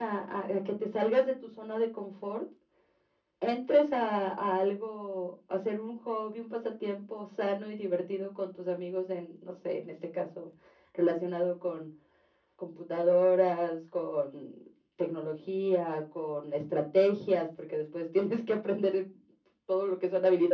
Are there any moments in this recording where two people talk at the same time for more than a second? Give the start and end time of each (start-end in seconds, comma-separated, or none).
none